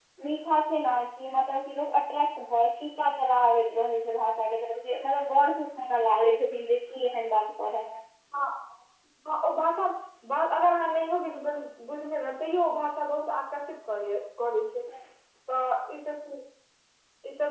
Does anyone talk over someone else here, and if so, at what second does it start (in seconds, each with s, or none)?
none